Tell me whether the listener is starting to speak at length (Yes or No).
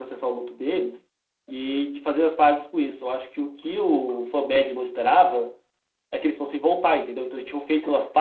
No